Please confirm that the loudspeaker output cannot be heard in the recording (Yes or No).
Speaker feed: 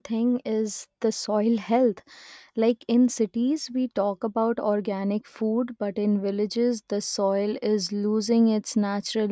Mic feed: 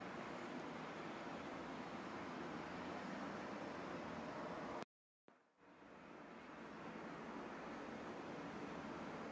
Yes